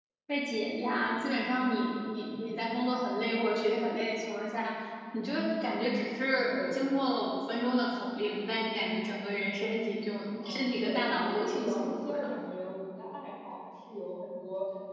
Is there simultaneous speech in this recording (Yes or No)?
Yes